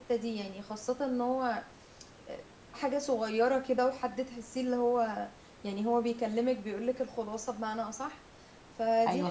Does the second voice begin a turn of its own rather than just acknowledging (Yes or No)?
No